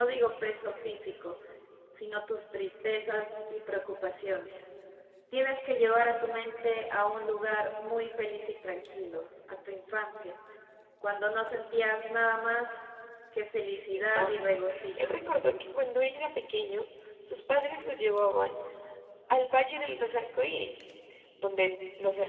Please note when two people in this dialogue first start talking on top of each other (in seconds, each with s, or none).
13.9 s